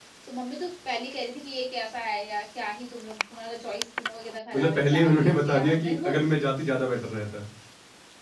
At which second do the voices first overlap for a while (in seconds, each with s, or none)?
4.5 s